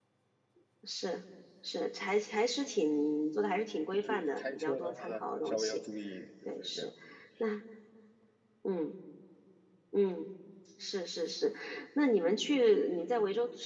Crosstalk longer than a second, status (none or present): present